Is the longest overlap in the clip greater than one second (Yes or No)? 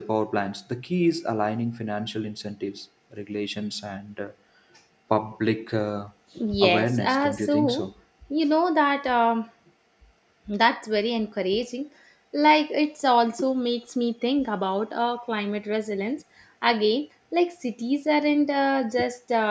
Yes